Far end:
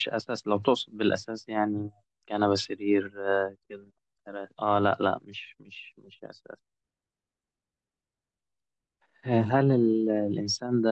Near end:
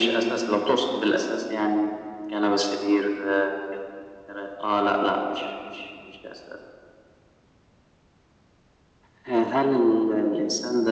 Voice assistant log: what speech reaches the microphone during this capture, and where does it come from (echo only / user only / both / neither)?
echo only